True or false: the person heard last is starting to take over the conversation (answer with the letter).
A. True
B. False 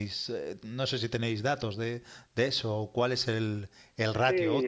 A